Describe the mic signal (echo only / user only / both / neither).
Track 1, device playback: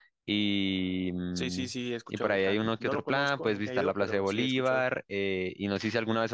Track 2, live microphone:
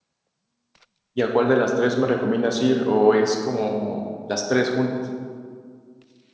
user only